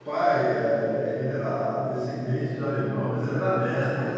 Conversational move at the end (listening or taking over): listening